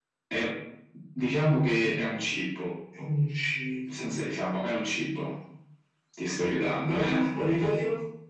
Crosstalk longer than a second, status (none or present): none